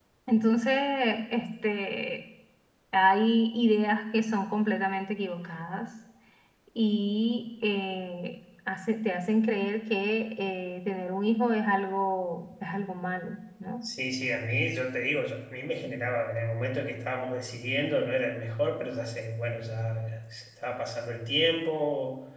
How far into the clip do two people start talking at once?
none

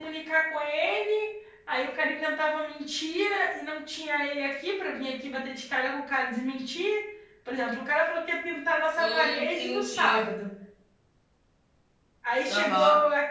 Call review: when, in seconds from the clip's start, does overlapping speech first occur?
9.0 s

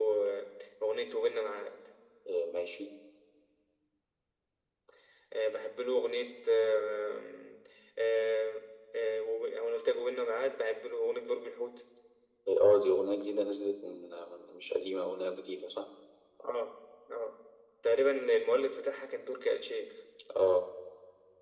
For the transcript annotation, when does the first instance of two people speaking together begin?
none

